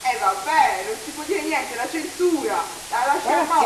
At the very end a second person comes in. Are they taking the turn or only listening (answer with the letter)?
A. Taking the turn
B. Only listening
A